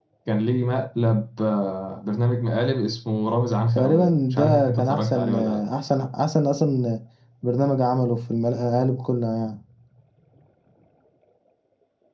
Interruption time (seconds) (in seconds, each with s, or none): 3.8 s